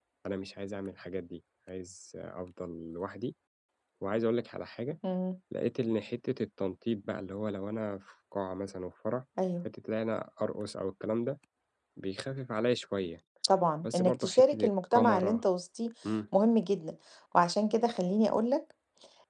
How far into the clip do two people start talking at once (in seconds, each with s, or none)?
13.8 s